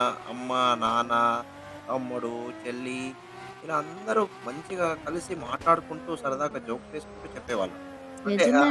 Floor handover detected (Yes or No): Yes